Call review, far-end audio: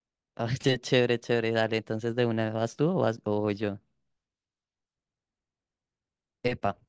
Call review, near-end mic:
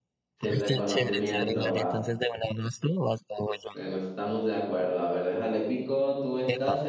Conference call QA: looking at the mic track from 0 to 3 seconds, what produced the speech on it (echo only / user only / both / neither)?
both